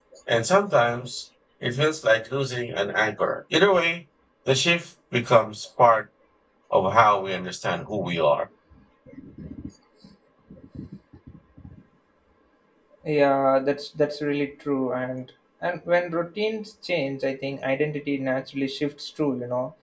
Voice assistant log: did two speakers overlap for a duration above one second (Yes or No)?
No